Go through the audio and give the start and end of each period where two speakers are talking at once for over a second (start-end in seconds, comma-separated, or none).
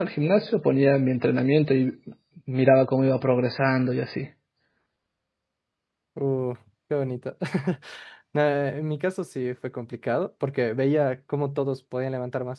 none